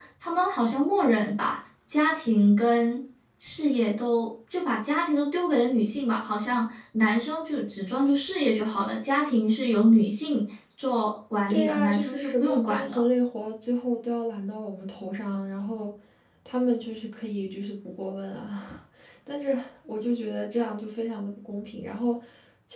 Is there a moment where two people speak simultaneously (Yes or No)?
Yes